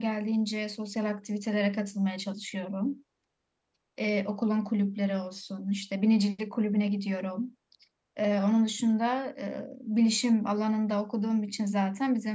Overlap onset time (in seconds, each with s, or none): none